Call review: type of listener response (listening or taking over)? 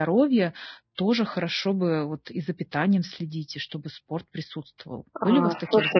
taking over